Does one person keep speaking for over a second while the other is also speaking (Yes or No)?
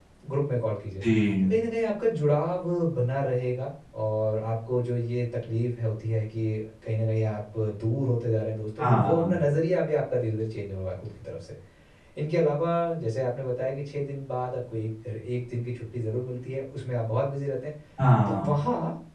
No